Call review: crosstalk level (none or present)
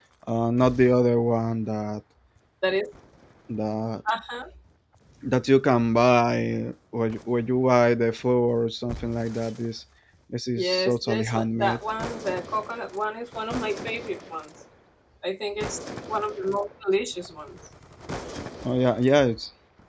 present